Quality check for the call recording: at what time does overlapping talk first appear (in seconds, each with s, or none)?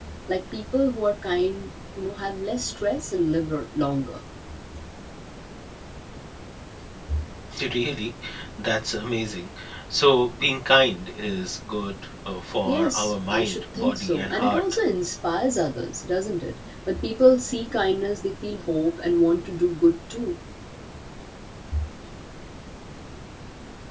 12.7 s